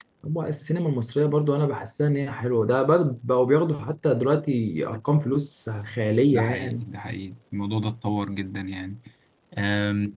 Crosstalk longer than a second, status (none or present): none